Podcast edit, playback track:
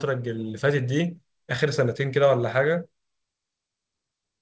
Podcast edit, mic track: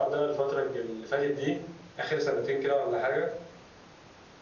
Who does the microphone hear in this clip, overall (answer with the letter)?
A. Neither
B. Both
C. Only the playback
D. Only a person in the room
C